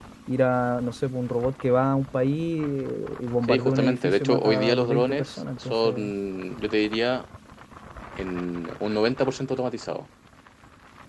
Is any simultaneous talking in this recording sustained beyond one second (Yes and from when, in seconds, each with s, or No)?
Yes, from 3.5 s